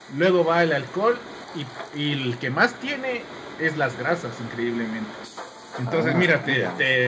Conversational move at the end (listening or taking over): listening